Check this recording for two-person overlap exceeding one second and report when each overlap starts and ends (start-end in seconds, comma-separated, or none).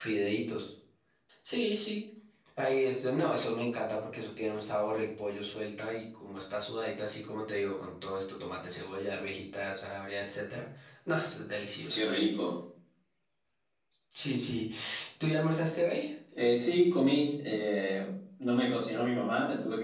none